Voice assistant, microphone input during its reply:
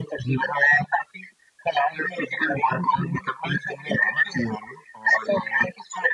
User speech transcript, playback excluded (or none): none